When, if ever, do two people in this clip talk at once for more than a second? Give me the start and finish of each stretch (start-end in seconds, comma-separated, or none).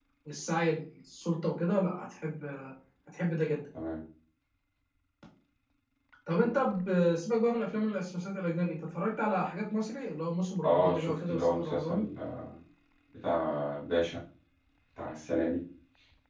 10.6-12.0